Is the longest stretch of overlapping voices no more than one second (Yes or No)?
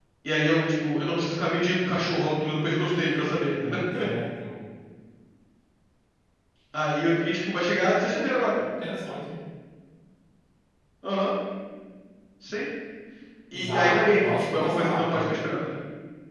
No